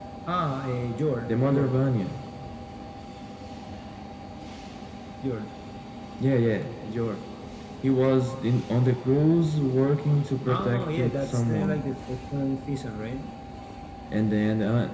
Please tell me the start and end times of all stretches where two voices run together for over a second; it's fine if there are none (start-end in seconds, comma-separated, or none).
10.4-11.8